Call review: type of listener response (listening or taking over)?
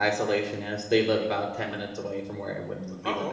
taking over